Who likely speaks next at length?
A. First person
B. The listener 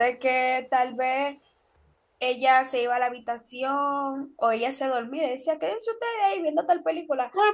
B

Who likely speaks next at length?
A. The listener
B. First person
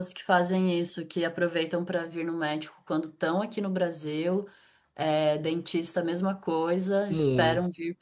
B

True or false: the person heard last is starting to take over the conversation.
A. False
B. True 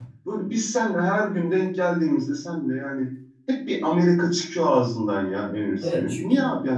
B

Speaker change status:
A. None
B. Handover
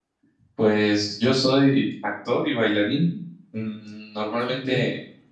A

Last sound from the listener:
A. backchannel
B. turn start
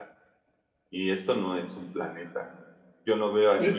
A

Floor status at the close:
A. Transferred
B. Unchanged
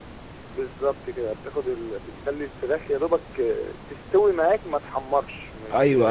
A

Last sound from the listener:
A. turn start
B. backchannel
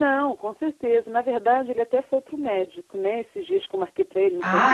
B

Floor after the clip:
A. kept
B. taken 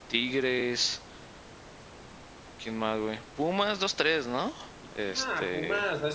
B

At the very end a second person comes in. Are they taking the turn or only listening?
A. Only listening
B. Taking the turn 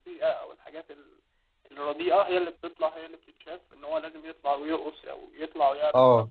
B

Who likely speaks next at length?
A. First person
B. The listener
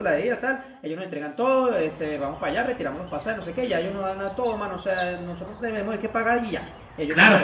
B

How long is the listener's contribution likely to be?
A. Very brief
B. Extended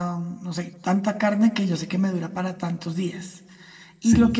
A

